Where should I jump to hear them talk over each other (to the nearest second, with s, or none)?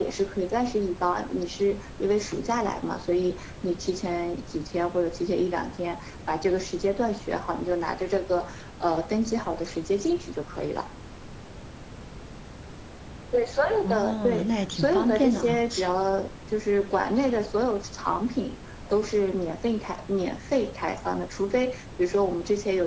14 s